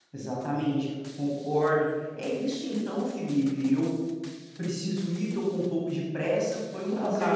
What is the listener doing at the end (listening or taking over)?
taking over